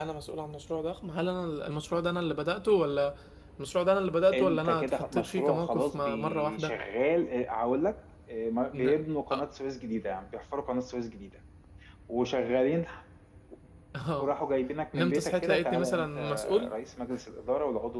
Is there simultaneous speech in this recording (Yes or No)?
Yes